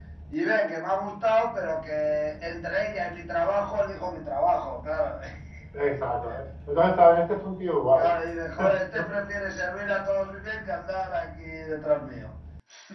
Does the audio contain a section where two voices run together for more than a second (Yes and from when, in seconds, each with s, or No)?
No